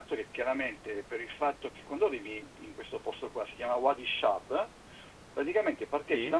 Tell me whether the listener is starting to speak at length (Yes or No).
No